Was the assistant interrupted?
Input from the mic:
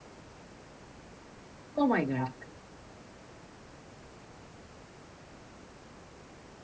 Yes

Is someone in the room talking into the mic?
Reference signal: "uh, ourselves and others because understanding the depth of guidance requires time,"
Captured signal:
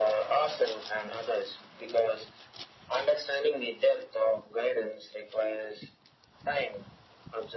No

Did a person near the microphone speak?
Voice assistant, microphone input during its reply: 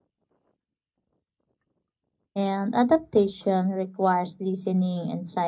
Yes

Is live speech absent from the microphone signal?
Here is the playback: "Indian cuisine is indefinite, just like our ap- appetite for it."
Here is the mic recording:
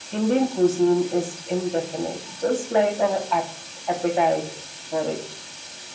Yes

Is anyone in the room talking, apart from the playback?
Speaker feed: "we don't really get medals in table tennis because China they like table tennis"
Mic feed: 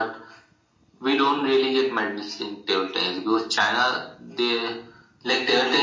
No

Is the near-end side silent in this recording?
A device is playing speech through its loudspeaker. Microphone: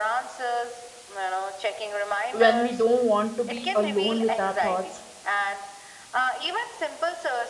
No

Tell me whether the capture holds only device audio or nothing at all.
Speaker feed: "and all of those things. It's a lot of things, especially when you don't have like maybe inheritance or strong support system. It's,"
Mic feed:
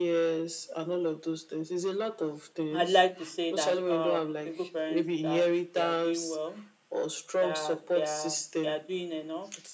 No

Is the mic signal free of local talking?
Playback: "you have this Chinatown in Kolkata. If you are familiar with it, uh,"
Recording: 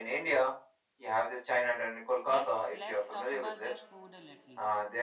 No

